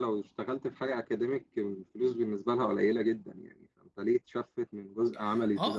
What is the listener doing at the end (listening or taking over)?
taking over